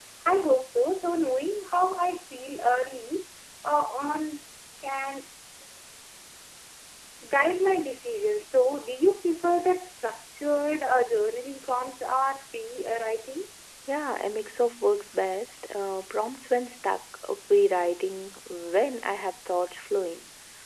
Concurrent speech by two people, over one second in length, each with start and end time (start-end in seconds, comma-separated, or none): none